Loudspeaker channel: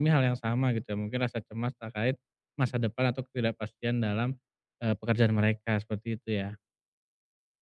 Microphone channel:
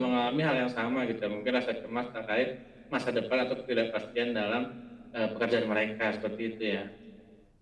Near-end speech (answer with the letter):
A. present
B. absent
B